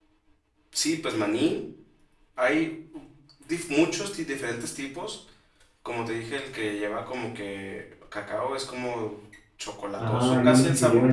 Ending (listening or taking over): taking over